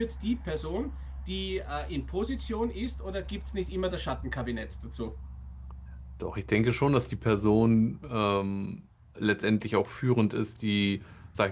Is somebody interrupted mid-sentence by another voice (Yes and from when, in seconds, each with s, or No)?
No